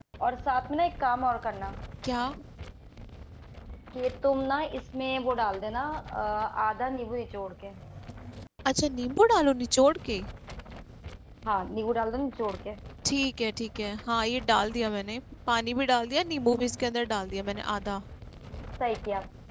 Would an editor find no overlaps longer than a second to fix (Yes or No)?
Yes